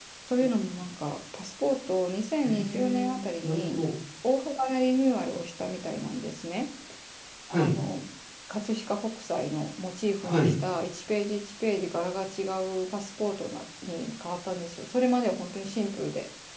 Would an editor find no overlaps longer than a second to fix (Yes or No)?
No